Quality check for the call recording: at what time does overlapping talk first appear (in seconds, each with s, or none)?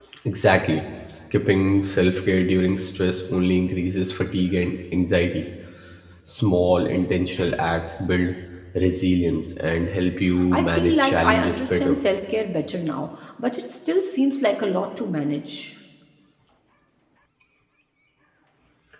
10.5 s